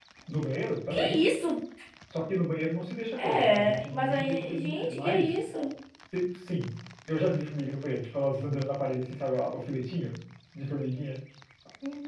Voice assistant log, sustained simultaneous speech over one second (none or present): present